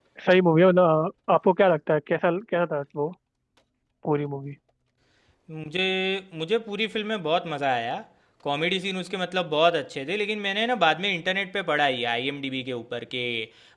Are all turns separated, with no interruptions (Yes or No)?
Yes